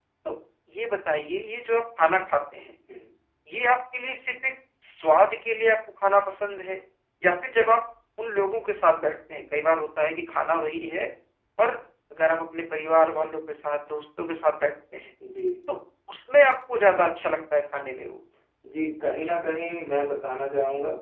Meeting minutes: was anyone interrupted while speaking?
No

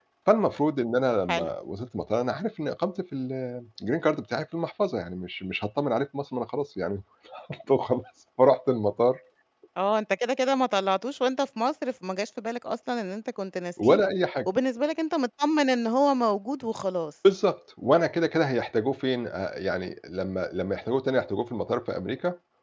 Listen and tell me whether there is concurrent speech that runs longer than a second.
No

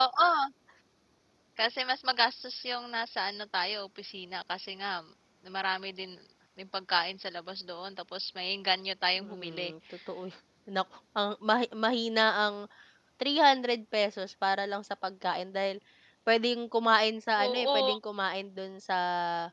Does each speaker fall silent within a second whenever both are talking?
Yes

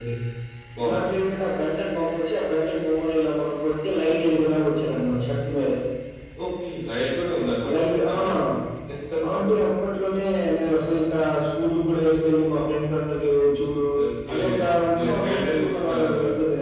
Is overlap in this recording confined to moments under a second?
No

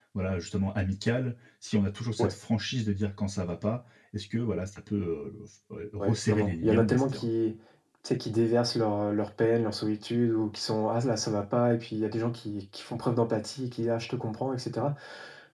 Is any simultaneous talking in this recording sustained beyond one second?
Yes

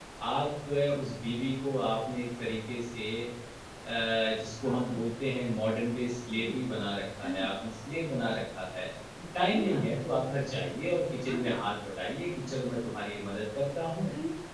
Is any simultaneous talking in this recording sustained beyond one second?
No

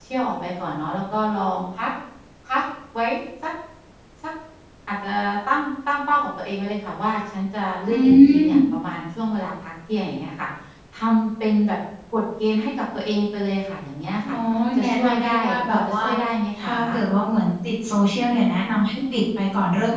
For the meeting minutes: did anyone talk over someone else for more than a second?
Yes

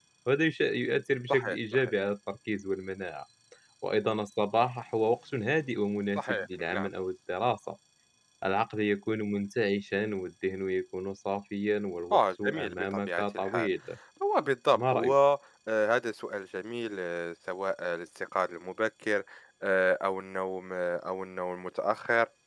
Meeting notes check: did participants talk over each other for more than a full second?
Yes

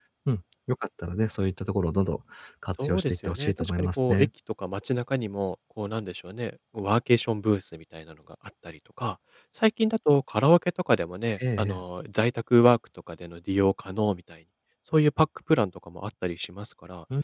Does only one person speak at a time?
No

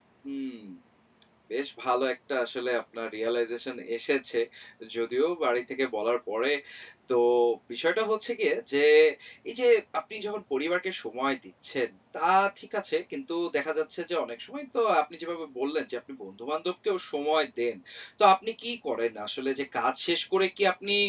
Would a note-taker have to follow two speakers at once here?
No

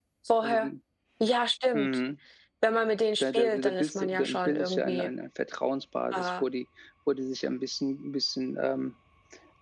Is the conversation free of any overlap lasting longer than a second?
No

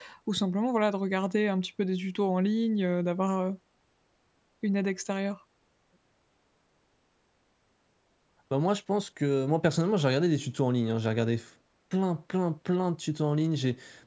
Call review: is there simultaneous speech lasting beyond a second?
No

